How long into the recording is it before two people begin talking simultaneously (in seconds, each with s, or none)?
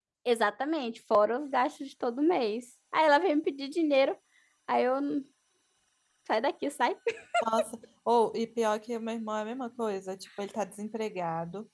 none